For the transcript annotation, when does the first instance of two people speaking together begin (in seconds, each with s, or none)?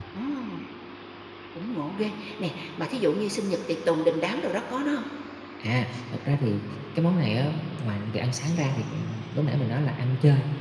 none